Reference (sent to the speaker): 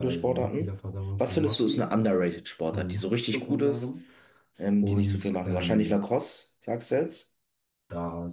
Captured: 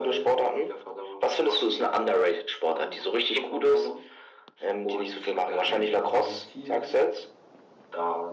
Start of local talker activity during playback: 6.0 s

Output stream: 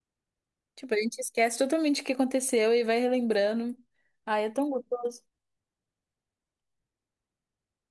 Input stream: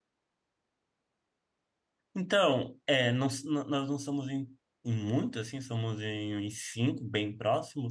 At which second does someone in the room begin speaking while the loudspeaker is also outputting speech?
2.1 s

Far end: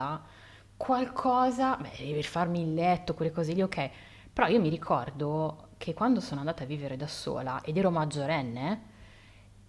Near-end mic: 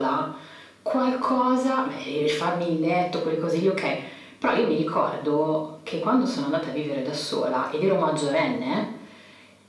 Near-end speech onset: none

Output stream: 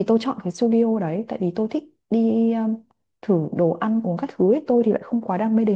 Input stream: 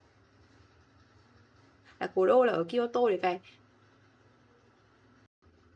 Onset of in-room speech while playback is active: 2.0 s

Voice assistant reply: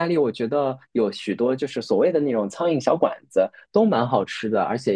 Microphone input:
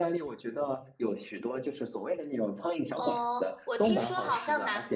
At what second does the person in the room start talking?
2.9 s

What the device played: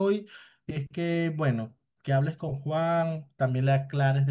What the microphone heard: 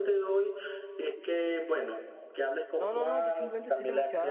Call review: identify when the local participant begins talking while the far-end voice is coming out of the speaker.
2.8 s

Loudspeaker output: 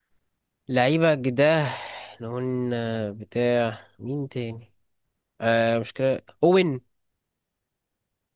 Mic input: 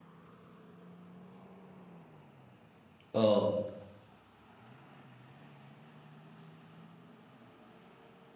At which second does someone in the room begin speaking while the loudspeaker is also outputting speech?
3.1 s

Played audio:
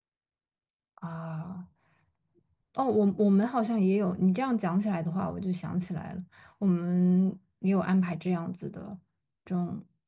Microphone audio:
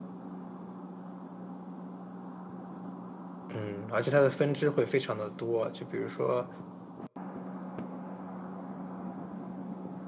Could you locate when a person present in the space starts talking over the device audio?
3.5 s

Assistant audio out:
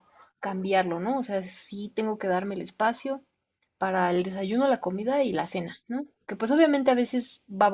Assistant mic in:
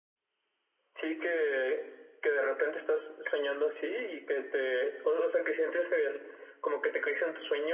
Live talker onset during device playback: 0.9 s

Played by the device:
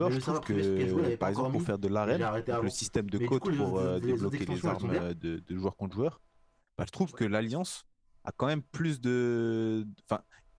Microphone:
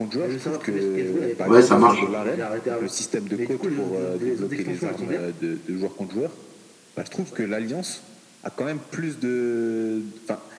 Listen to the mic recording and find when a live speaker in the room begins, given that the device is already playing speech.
1.4 s

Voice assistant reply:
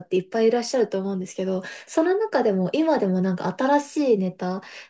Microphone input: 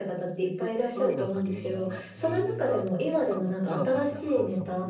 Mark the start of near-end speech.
0.6 s

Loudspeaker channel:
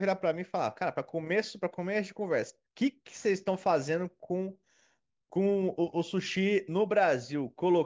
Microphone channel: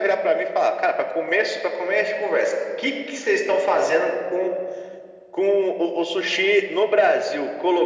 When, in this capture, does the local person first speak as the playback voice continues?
none

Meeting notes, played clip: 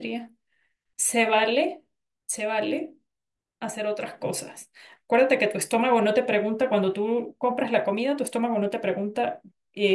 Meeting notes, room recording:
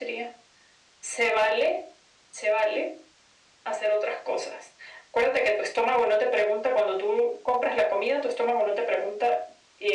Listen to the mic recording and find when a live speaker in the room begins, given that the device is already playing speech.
none

